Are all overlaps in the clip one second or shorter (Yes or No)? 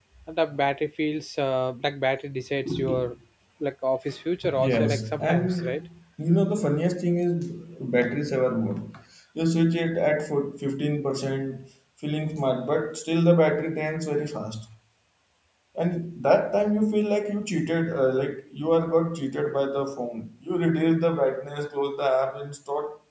No